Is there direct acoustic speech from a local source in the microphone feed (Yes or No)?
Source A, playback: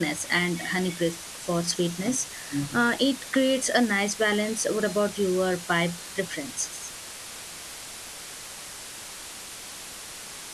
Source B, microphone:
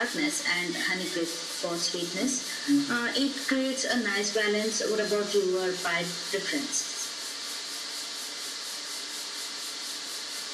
No